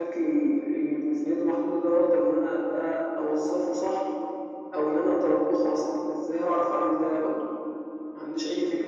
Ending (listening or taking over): taking over